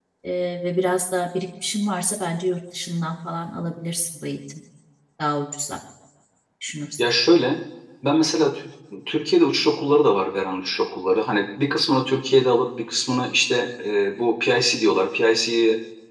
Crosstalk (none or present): none